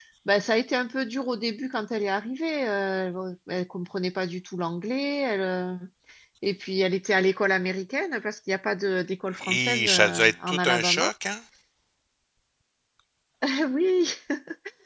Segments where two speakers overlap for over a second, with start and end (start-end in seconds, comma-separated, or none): 9.4-11.1